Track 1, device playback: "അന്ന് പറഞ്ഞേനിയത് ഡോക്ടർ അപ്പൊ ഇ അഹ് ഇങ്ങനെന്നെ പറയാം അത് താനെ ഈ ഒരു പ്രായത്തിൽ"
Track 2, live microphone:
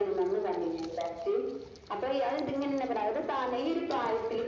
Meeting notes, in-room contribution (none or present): none